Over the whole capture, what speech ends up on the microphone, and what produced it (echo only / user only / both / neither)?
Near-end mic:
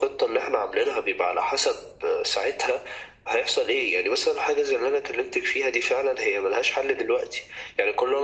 echo only